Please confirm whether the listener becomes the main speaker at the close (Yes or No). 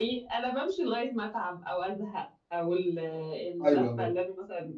No